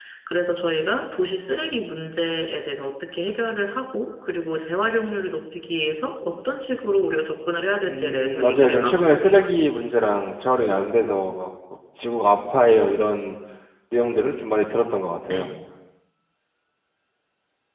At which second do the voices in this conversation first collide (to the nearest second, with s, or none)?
8 s